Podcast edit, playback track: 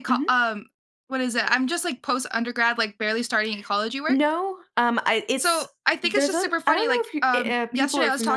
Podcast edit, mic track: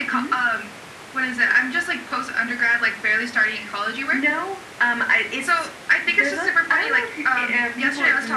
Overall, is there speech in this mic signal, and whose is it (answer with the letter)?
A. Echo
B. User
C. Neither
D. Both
A